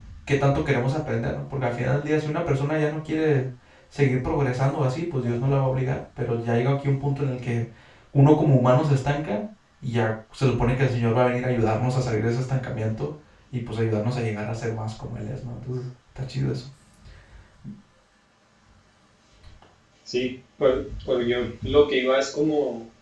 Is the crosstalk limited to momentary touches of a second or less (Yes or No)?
Yes